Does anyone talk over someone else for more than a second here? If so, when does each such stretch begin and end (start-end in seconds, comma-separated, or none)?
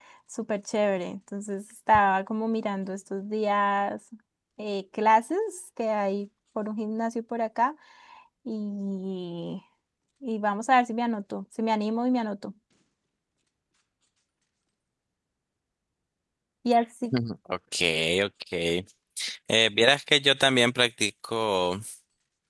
none